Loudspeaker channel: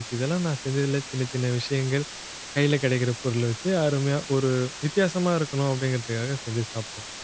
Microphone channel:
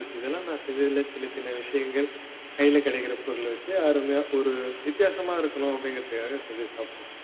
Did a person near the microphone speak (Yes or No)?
No